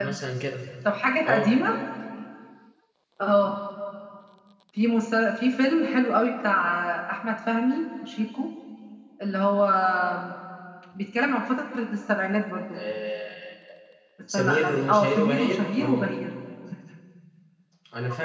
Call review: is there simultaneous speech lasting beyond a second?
Yes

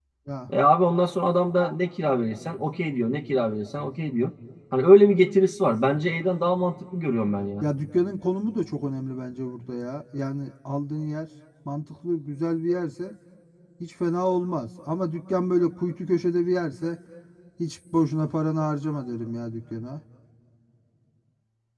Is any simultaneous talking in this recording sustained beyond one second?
No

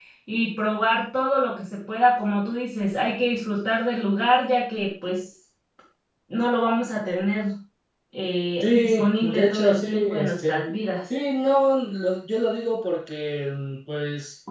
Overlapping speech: Yes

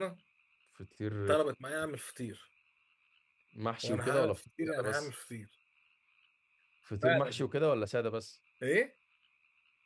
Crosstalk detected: Yes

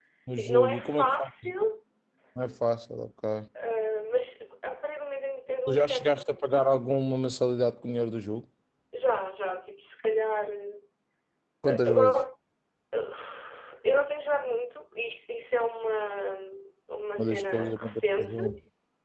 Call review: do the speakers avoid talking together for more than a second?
No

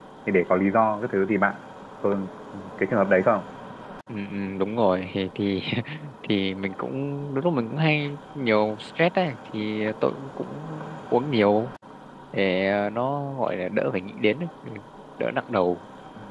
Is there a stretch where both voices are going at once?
No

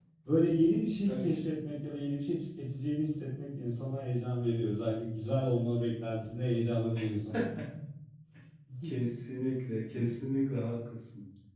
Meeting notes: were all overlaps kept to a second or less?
Yes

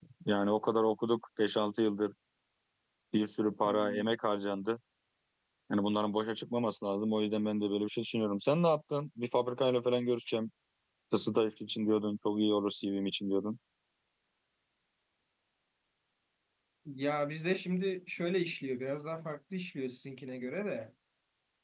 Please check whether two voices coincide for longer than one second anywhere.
No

